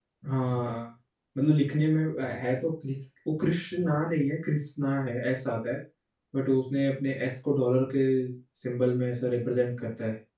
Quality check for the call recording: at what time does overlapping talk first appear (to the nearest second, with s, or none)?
none